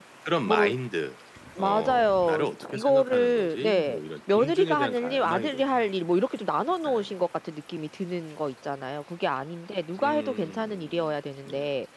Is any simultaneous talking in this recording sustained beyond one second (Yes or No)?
Yes